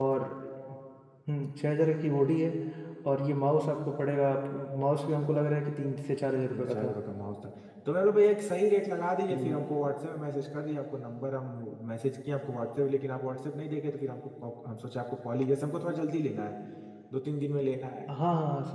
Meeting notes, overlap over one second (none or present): none